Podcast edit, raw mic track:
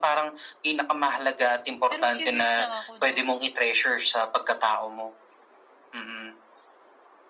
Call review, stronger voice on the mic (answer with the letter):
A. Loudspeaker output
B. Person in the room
A